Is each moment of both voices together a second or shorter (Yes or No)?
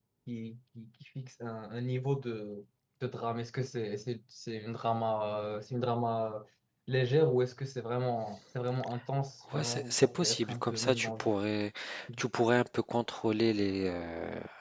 No